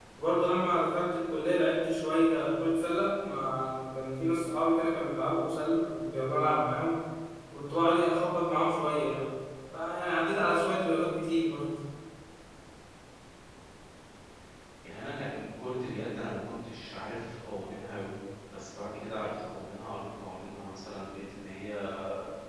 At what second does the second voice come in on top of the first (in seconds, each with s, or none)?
none